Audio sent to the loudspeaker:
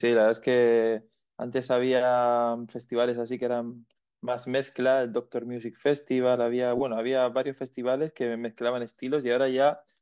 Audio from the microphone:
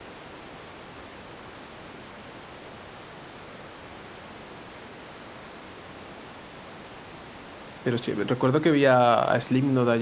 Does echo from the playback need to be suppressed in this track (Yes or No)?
No